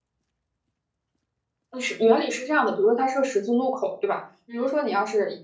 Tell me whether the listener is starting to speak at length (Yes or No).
No